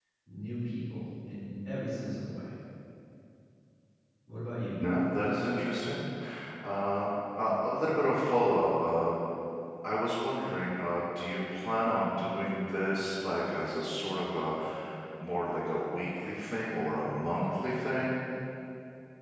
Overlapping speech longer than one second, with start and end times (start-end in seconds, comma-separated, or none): none